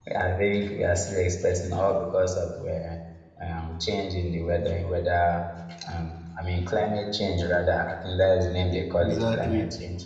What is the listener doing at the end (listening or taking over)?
taking over